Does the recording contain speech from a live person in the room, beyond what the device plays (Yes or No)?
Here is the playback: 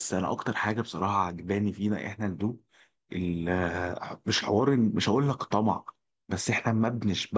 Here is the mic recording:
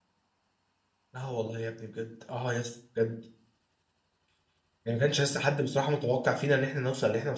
Yes